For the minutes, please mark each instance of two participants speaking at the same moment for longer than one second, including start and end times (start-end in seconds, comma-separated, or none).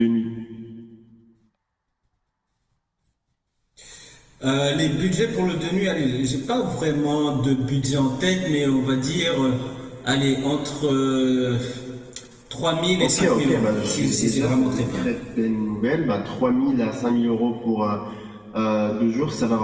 13.0-15.0